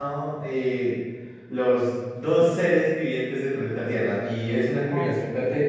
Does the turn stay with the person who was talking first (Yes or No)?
Yes